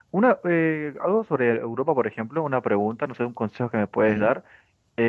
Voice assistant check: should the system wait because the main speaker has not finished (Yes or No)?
Yes